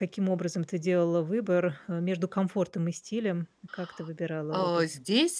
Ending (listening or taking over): taking over